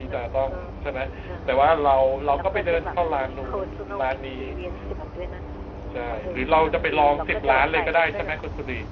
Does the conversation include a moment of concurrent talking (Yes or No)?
Yes